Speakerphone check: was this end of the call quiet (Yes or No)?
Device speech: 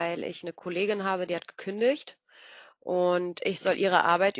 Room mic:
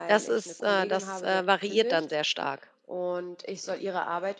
No